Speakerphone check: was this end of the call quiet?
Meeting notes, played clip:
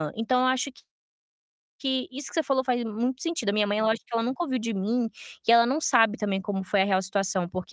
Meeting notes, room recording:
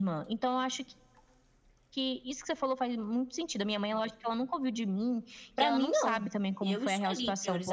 No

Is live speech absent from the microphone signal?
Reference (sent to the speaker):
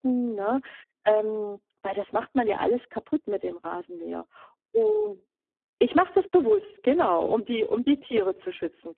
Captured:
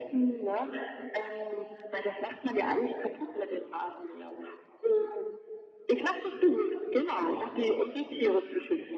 Yes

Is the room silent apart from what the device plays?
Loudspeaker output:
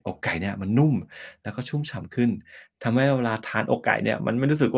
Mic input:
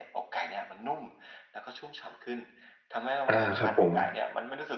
No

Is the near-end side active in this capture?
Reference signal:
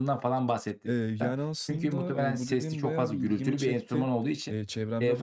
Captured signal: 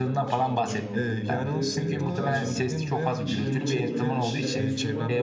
Yes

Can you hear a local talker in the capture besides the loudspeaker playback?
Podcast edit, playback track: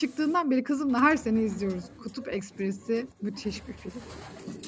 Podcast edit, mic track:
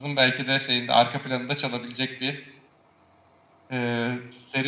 Yes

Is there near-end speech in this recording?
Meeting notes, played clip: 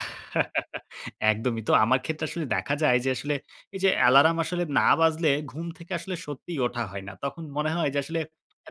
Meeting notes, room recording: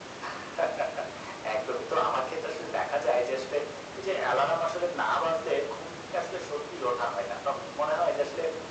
No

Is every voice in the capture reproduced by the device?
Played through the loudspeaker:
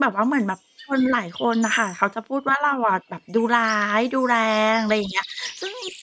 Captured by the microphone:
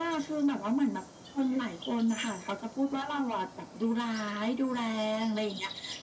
Yes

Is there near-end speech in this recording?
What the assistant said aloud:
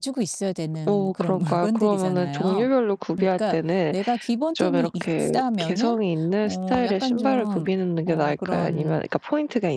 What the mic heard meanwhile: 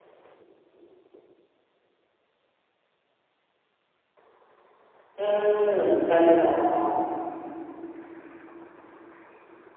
Yes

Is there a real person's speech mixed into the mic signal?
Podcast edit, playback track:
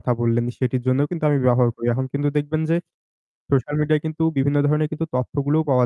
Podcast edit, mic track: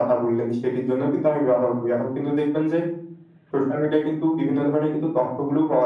No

